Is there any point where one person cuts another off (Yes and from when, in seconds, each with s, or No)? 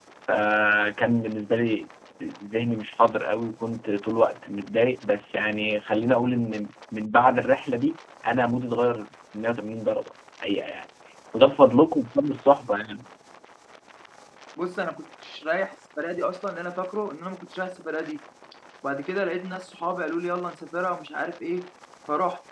No